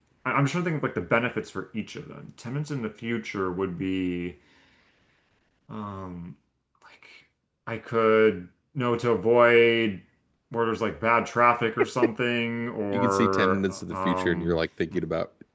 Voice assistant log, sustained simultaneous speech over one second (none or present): present